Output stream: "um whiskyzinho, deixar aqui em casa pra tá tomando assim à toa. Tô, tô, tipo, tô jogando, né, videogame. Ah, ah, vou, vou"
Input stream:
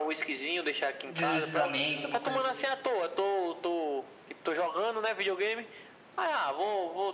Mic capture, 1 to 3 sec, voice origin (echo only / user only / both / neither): both